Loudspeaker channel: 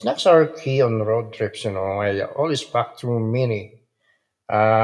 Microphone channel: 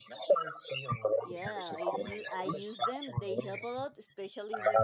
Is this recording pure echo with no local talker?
No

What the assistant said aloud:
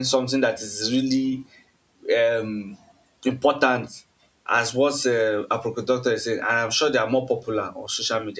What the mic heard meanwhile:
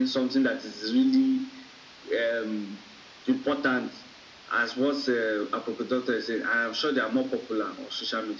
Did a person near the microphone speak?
No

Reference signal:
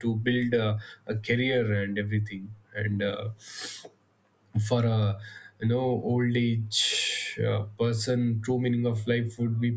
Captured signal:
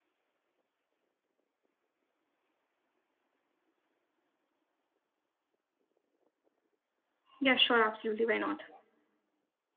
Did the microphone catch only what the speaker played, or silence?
No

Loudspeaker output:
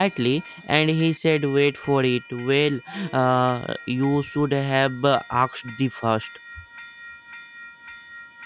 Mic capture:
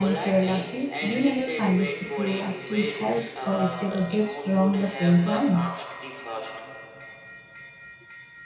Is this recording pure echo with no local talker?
No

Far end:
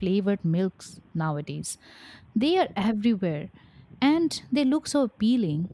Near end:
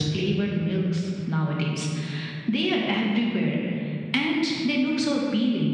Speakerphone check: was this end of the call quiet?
Yes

